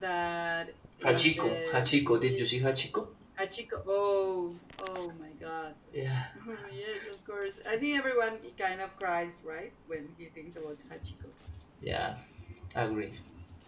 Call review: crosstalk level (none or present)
present